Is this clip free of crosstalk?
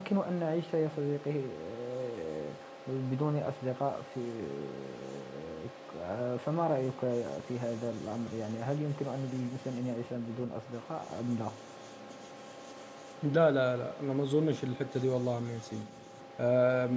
Yes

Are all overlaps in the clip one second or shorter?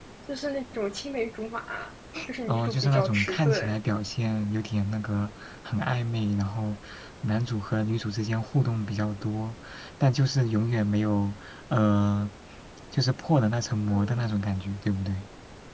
No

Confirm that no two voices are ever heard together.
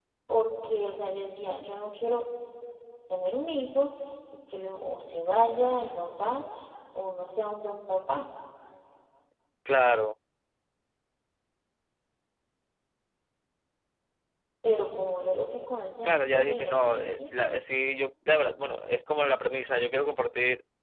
No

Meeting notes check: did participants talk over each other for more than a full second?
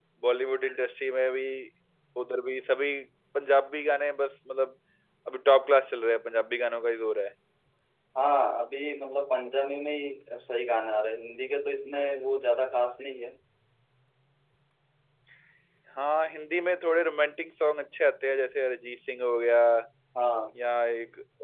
No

